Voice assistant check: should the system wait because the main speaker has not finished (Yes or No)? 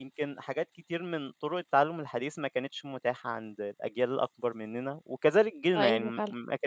Yes